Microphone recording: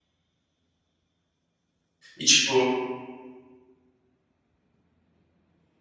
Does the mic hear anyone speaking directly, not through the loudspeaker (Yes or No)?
Yes